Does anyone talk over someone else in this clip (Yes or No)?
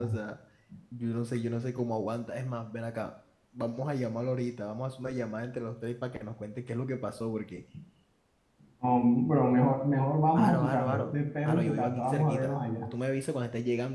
Yes